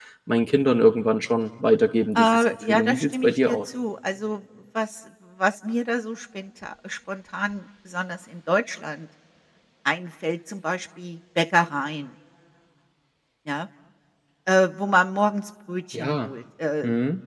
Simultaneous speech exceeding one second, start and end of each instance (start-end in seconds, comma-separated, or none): 2.2-3.6